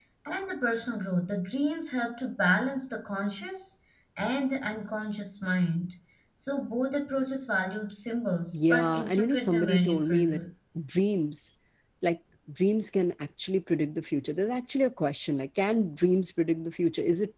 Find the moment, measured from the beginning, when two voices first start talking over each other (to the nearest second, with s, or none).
9 s